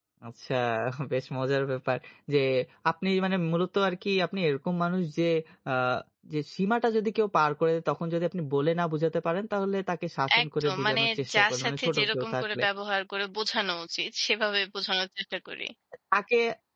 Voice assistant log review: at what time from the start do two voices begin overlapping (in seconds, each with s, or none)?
10.3 s